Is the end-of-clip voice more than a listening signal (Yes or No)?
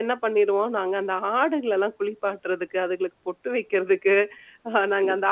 No